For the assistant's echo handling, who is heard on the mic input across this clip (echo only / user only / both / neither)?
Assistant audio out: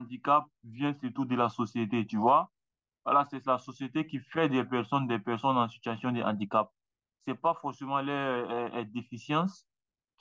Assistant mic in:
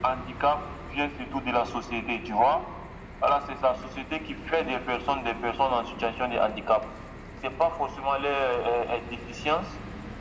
echo only